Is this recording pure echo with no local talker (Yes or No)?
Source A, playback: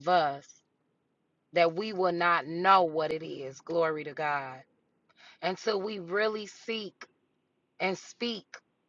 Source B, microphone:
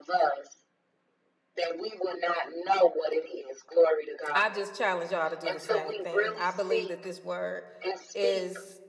No